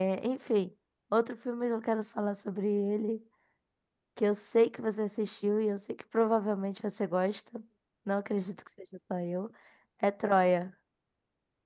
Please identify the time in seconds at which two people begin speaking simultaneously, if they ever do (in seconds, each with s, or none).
none